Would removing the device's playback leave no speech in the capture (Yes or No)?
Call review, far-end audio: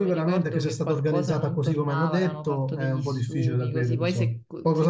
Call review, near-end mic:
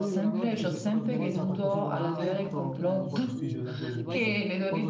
No